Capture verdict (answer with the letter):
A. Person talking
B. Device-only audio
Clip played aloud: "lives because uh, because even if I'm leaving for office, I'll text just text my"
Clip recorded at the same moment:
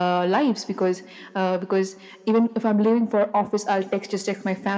B